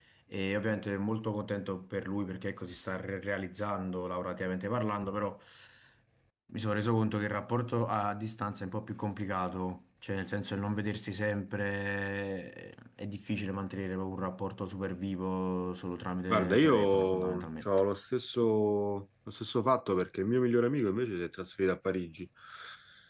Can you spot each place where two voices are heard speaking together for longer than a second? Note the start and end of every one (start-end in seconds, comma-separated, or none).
16.3-17.7